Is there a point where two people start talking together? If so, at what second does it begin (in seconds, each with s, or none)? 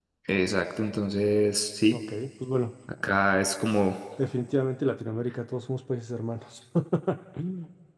none